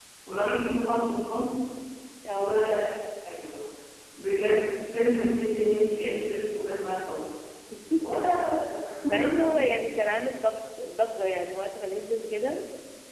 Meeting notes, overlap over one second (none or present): none